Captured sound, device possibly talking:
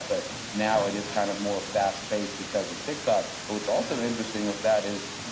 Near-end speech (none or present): none